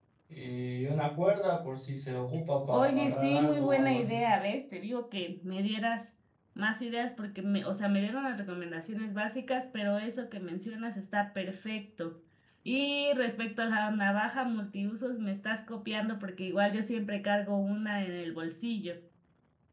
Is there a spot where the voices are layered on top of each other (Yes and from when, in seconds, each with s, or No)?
Yes, from 2.6 s